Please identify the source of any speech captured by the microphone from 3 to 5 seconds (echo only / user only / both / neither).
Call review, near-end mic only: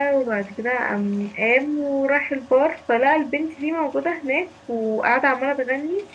echo only